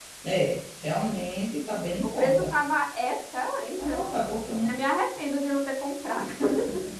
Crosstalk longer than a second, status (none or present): none